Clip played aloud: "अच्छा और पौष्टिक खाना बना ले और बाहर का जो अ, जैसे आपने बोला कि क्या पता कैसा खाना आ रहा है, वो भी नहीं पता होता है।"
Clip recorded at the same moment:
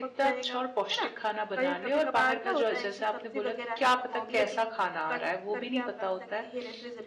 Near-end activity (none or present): present